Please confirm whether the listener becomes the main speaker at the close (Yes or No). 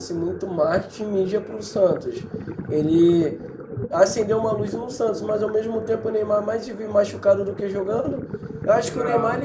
No